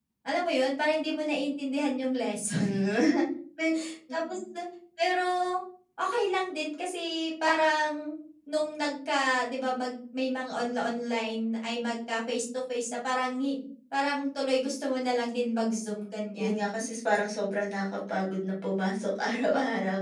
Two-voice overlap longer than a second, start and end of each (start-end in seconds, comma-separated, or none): none